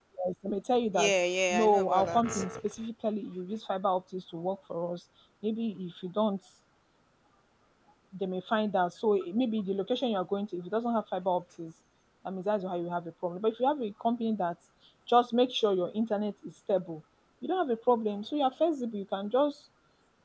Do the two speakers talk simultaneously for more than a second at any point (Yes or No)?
Yes